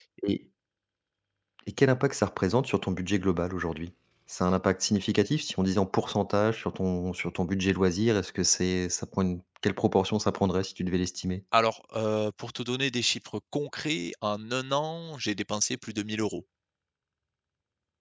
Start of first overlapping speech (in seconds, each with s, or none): none